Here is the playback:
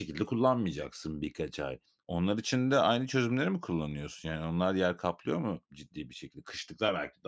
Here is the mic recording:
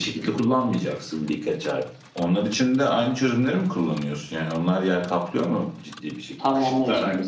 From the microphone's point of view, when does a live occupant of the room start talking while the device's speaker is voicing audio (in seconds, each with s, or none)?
6.4 s